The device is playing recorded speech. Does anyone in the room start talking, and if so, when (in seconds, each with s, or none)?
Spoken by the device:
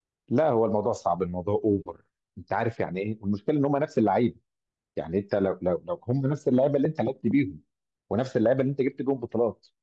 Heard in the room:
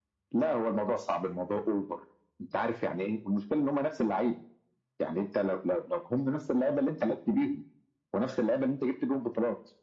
none